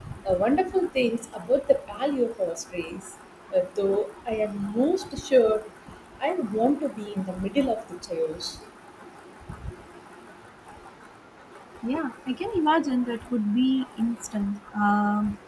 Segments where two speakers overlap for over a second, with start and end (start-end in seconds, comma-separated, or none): none